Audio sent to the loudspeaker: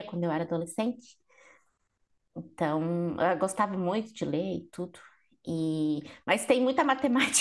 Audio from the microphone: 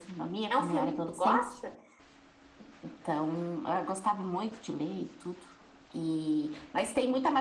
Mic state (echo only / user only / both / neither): both